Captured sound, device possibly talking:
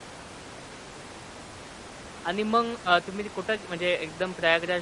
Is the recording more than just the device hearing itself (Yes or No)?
Yes